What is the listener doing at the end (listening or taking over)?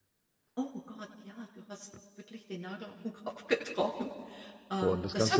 taking over